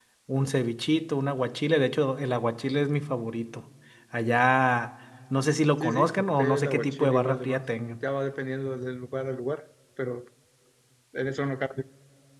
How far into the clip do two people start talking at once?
5.8 s

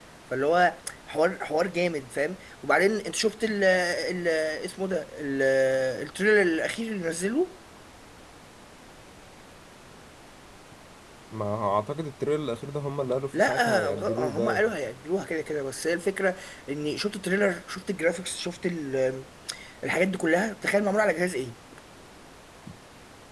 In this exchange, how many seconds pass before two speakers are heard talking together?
13.3 s

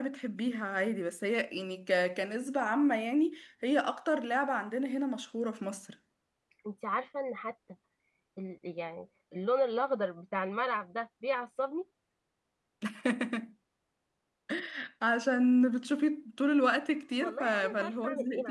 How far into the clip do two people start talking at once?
17.2 s

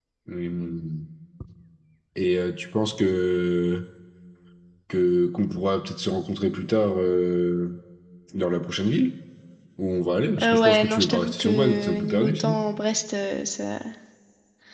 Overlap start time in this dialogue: 10.4 s

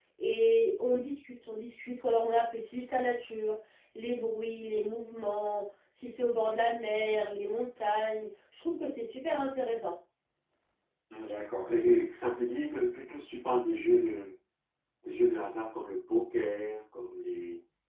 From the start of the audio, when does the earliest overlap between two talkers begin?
none

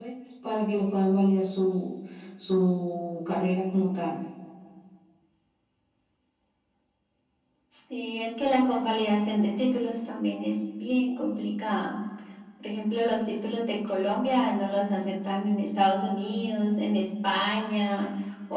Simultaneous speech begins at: none

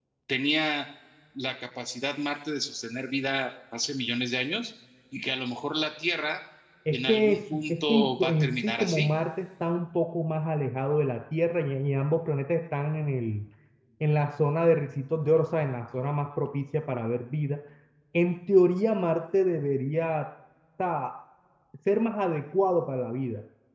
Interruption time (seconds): 6.9 s

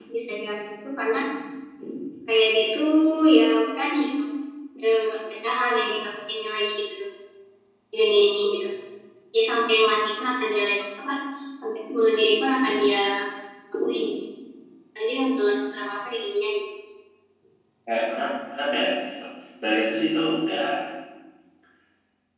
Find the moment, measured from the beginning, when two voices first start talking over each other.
none

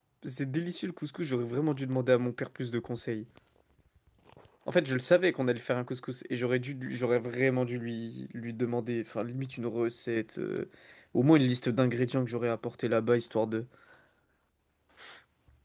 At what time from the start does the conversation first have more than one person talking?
none

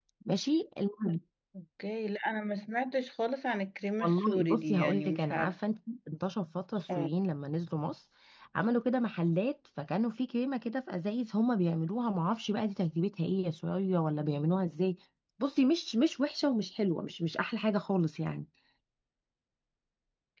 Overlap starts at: 4.0 s

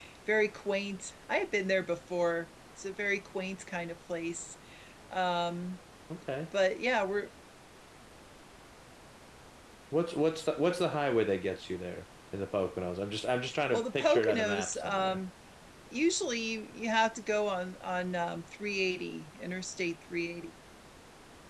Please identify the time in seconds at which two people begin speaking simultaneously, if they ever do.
13.7 s

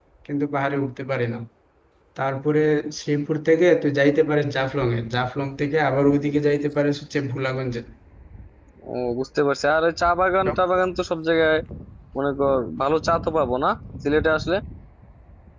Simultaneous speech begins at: none

